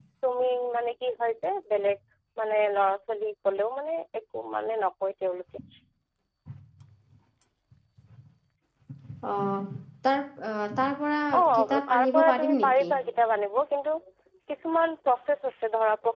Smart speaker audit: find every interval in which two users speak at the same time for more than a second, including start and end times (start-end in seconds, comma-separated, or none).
11.6-12.9